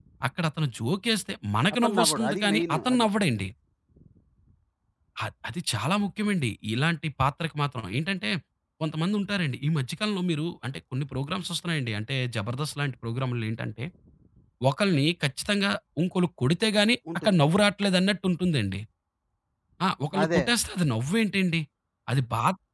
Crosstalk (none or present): present